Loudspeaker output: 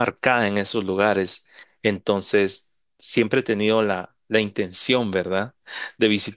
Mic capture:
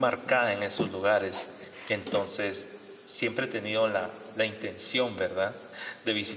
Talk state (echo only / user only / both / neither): echo only